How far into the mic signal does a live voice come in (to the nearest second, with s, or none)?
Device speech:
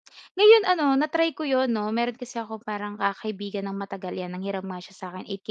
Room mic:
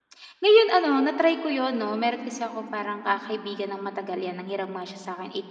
none